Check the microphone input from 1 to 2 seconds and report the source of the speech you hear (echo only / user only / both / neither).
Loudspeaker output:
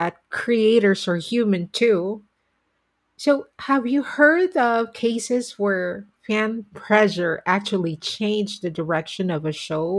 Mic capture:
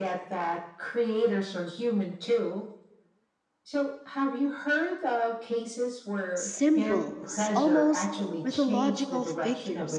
echo only